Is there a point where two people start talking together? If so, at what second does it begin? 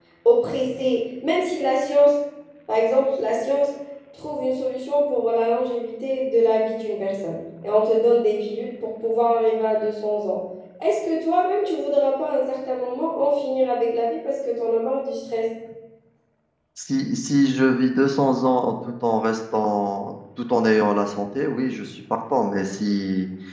none

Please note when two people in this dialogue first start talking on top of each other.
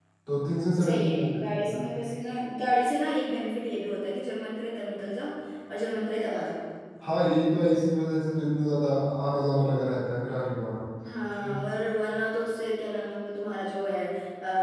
0.8 s

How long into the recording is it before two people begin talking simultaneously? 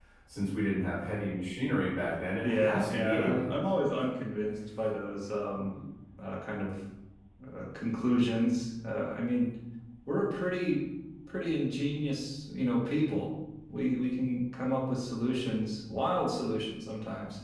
2.4 s

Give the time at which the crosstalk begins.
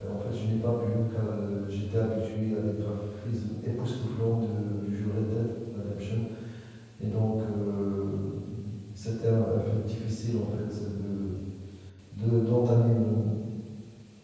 none

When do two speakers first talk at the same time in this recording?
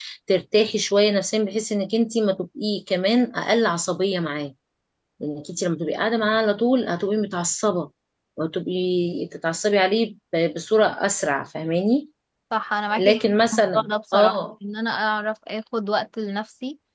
13.0 s

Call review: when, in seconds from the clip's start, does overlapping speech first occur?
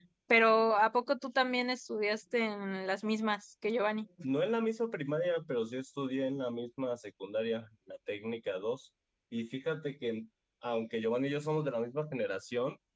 none

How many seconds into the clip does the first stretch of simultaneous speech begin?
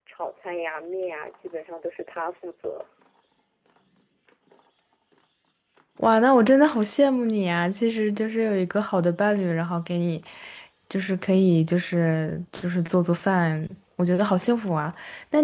none

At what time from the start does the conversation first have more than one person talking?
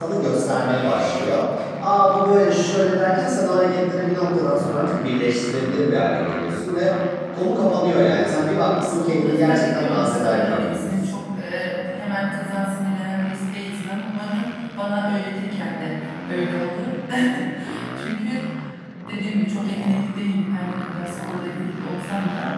8.9 s

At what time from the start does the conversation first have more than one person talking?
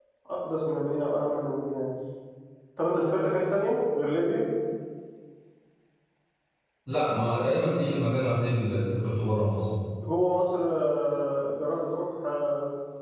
none

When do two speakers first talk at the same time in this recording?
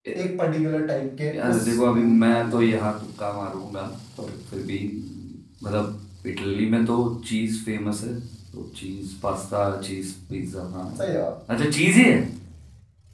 1.3 s

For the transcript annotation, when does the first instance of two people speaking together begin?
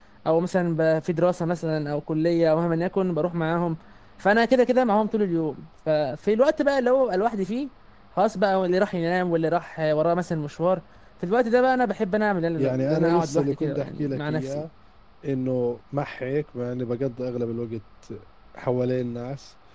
12.6 s

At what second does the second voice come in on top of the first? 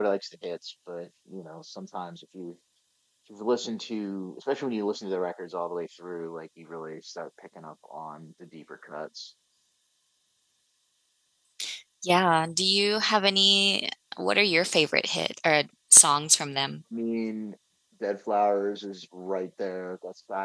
none

